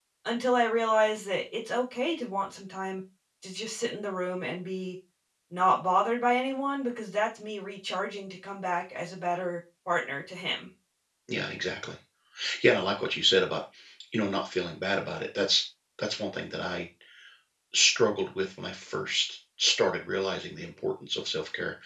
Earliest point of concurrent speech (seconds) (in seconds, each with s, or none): none